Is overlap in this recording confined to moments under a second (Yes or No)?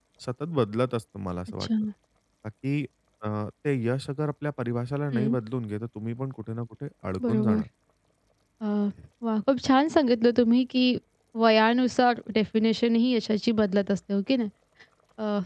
Yes